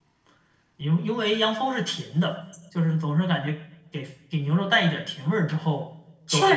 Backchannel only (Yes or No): No